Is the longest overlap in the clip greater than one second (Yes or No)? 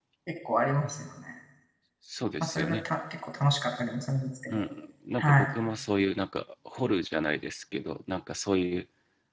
No